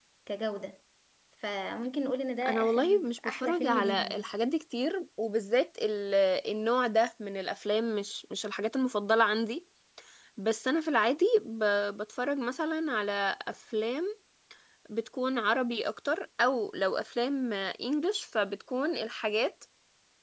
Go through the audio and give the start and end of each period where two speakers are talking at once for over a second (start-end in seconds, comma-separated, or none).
2.5-4.3